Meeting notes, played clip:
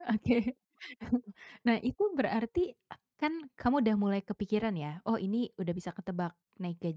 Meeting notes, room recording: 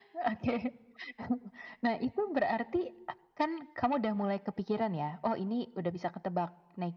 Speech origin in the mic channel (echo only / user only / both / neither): echo only